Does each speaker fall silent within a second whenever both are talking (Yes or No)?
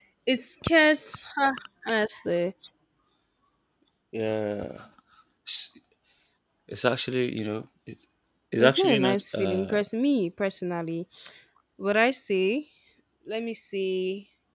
No